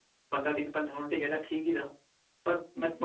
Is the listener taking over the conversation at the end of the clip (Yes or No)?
No